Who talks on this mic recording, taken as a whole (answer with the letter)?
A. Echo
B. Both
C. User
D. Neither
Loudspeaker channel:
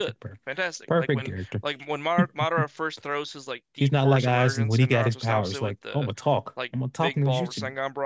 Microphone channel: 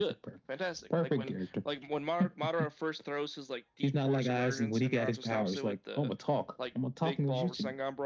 A